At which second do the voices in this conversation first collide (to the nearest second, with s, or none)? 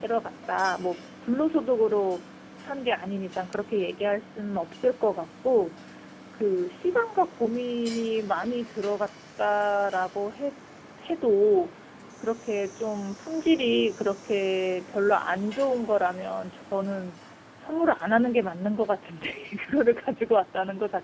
none